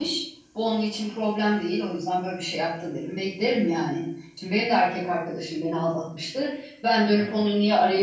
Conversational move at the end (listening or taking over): listening